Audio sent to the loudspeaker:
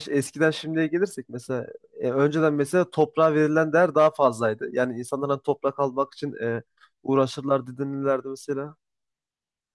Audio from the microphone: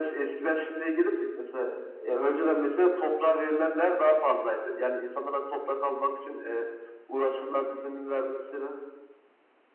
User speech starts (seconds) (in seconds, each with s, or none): none